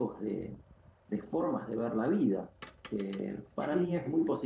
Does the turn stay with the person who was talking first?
Yes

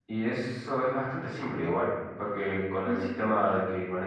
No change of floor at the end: Yes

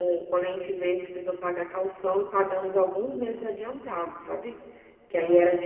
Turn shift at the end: No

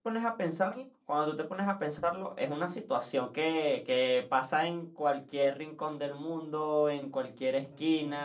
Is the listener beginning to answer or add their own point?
No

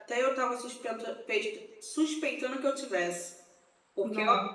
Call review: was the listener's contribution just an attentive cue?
Yes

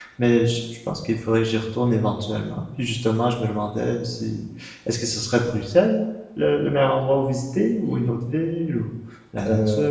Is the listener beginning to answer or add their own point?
Yes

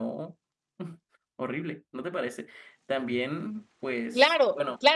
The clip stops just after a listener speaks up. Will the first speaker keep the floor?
No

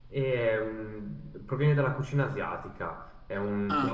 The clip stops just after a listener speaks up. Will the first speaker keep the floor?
Yes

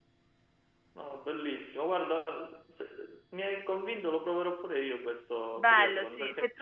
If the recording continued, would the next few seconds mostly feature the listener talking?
Yes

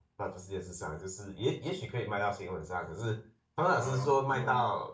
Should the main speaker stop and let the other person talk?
No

